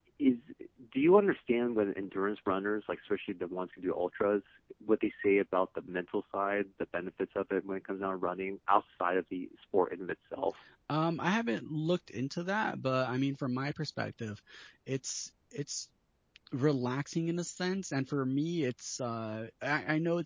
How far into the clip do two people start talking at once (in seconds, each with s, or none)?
none